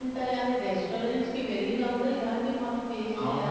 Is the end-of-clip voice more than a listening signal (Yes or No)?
Yes